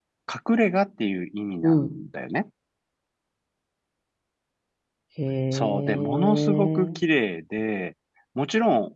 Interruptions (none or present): present